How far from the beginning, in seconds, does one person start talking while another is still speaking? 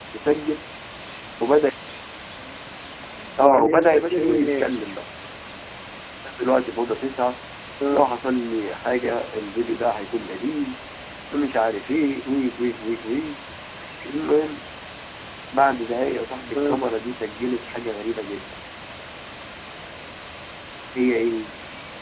3.4 s

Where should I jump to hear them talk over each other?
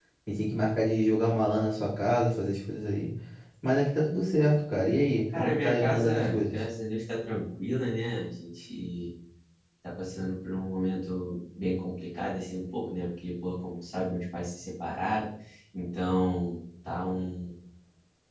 5.3 s

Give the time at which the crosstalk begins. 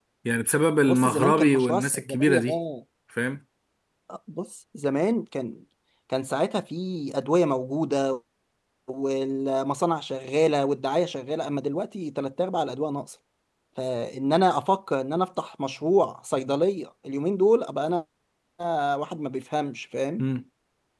0.8 s

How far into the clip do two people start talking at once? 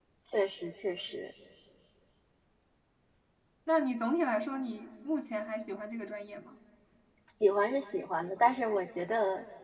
none

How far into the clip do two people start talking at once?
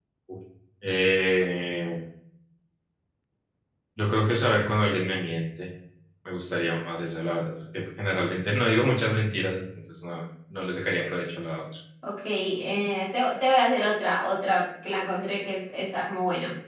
none

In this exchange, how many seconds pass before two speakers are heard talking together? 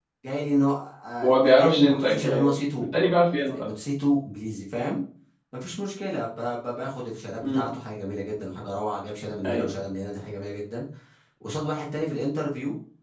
1.2 s

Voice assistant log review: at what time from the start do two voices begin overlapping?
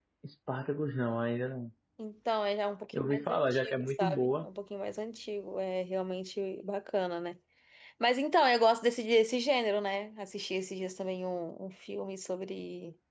2.9 s

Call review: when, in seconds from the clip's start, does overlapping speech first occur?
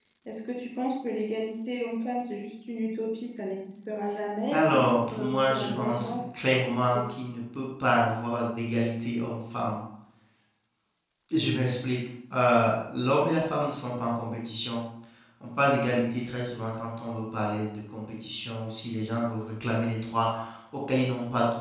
4.5 s

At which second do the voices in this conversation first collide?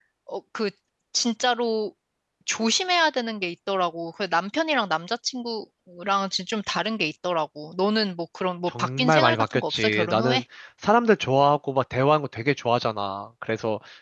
8.7 s

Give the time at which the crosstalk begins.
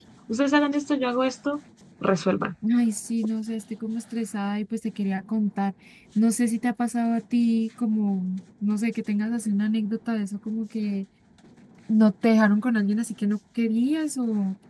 none

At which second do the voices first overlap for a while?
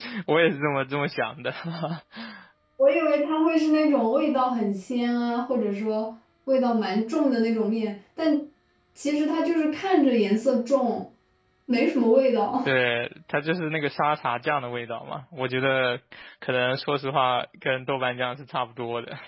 none

